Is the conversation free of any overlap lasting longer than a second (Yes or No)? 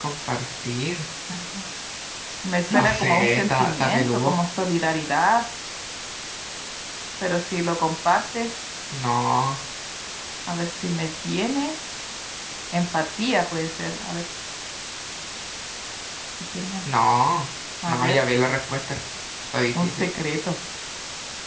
No